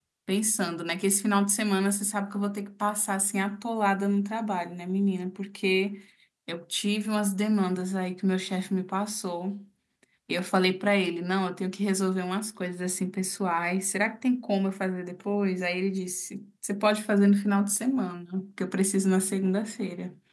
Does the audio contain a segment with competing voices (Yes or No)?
No